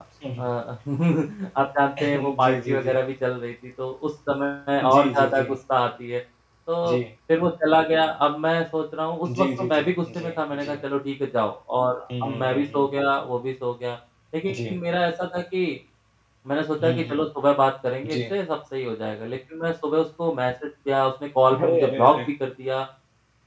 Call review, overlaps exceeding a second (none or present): present